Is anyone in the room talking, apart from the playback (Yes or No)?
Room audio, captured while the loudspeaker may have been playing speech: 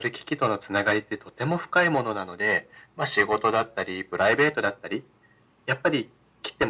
No